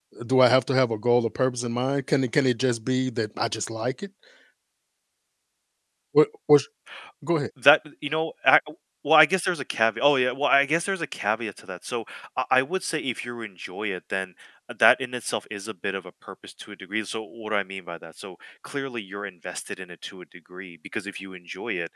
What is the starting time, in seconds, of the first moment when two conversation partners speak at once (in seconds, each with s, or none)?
none